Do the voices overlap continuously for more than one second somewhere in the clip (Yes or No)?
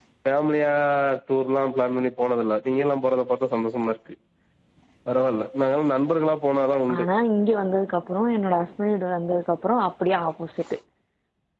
No